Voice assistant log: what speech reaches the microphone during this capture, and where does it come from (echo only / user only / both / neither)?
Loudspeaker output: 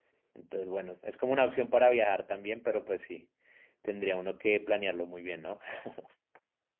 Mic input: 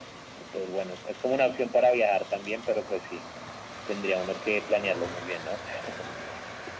echo only